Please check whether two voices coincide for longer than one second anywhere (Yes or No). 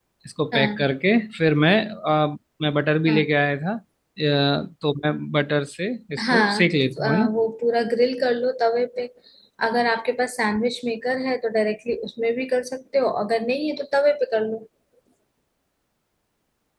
No